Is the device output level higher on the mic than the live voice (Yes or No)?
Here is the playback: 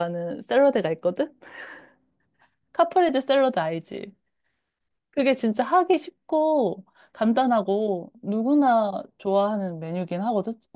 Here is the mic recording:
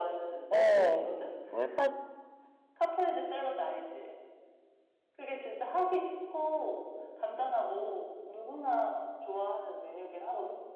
No